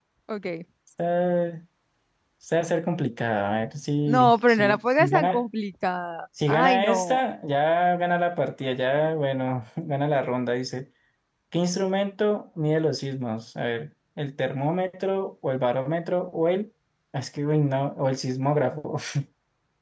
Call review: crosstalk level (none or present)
present